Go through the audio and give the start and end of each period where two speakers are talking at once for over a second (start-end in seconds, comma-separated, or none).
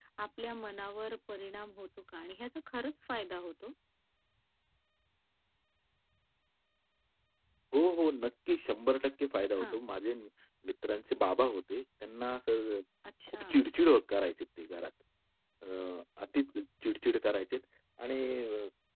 none